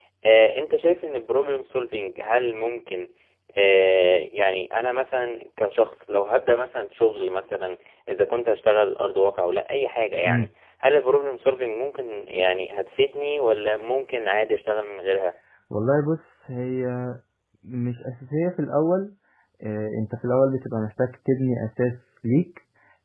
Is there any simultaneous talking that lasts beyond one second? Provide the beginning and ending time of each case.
none

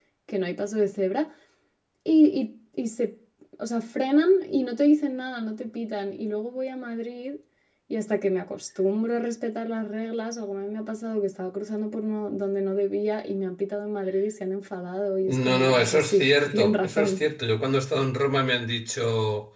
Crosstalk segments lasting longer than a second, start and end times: 15.2-17.2

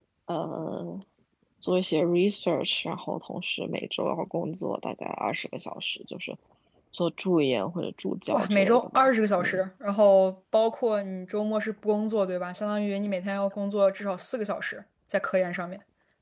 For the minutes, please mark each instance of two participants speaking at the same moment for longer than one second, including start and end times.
8.3-9.6

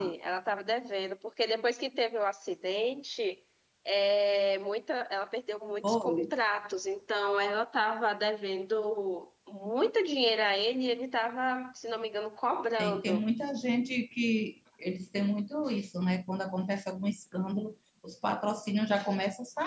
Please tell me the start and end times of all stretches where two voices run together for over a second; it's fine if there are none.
none

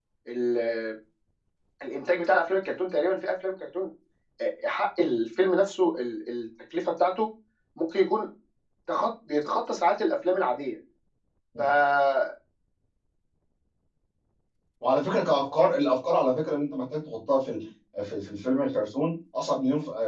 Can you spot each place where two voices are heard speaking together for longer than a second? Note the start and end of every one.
none

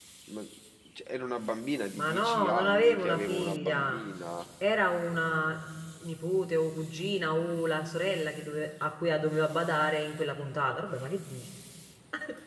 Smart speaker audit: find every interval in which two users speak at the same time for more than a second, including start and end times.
1.9-4.0

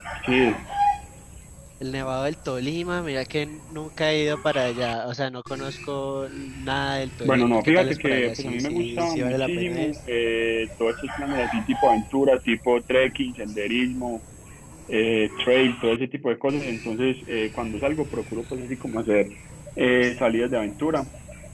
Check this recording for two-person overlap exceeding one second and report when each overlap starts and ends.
7.2-9.9

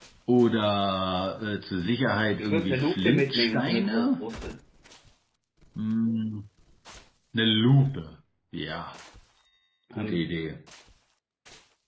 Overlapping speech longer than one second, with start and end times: 2.4-4.2

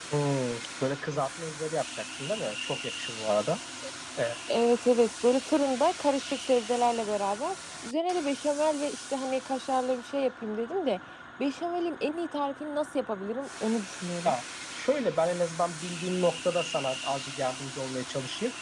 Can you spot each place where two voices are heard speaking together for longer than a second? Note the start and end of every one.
none

